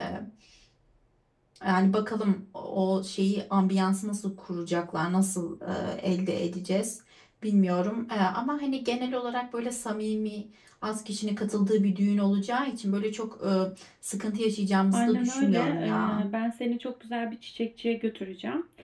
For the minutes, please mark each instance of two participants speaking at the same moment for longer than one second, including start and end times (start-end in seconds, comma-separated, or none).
14.9-16.2